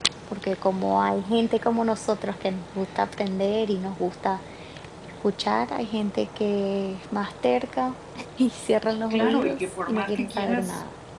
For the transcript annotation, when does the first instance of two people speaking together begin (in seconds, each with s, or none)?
9.1 s